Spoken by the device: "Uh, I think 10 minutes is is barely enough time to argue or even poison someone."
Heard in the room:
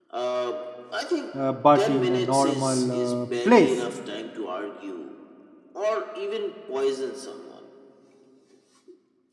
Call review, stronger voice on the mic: user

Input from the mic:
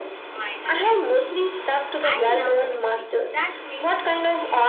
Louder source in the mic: echo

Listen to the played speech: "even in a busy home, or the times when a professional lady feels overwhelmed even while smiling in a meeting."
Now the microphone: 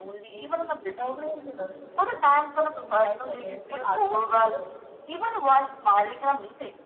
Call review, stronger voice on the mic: echo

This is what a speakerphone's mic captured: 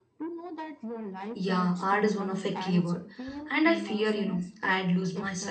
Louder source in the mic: user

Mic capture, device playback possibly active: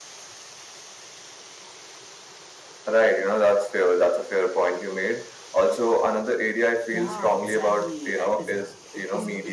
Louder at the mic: echo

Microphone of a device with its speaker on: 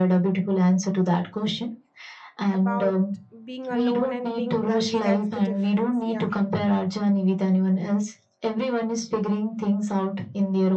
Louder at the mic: echo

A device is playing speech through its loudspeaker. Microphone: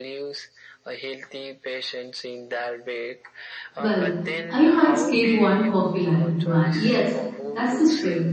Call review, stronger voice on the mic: user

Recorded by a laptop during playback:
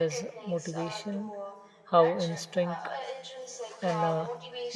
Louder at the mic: user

